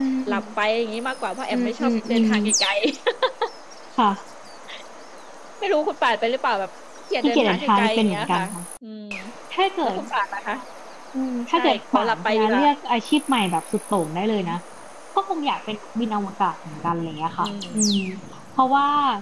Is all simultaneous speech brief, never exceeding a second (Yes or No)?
No